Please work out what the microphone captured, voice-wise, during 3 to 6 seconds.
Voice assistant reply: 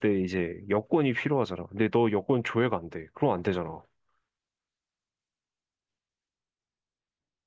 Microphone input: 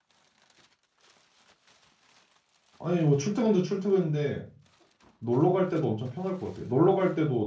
user only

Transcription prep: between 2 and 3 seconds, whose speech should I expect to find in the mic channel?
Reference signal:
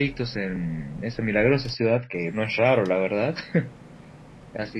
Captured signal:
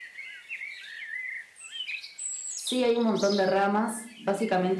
user only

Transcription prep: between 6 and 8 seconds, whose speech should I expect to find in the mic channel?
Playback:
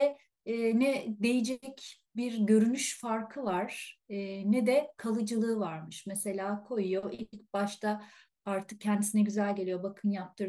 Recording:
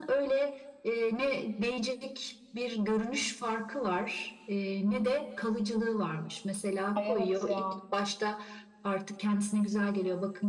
both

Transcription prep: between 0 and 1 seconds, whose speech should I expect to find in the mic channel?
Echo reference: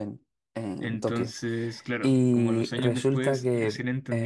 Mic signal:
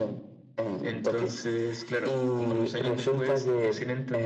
echo only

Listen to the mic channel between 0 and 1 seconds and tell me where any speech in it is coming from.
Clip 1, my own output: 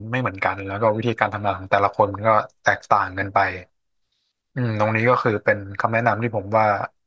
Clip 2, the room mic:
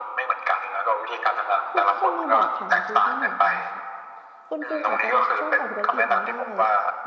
echo only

